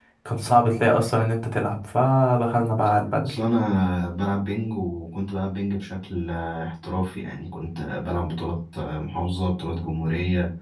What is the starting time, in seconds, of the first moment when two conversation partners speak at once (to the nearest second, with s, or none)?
none